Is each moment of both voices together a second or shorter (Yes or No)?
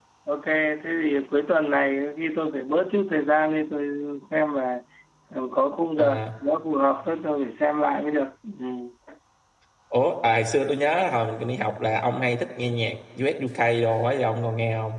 Yes